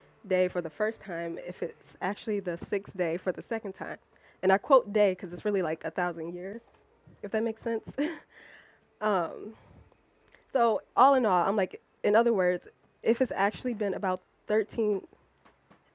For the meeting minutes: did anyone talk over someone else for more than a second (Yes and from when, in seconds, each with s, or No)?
No